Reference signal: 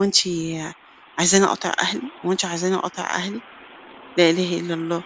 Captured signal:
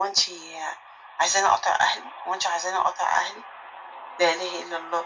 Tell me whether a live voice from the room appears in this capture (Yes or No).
No